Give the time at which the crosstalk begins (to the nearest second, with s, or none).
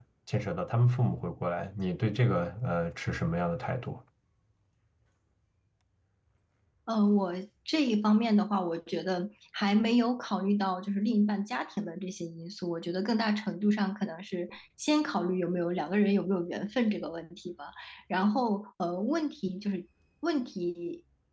none